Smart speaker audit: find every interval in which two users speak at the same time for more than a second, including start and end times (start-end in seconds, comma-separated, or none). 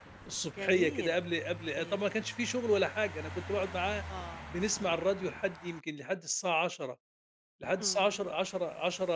none